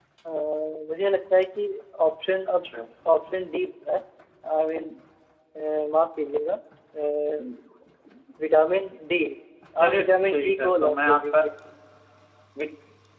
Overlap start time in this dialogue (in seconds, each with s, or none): 9.9 s